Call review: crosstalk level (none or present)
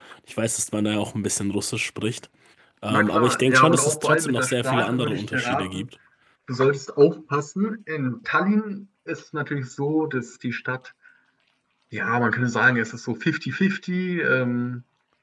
present